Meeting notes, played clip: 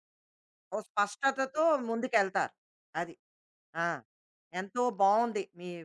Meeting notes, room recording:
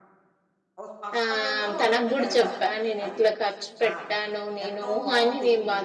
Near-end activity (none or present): present